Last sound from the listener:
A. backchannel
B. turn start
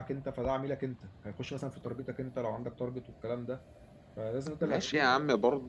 B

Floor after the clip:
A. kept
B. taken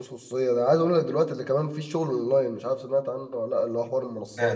B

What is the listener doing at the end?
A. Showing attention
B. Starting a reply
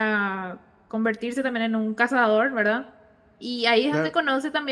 A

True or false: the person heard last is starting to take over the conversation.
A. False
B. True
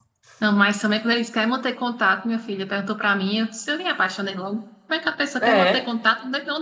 A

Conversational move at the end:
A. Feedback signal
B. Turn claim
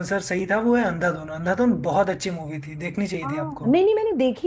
B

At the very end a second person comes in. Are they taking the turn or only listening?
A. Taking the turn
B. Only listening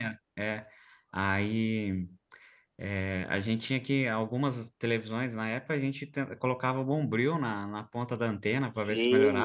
A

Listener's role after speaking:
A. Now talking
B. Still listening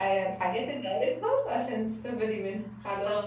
A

